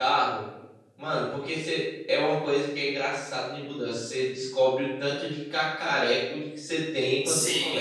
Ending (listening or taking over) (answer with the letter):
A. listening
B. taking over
B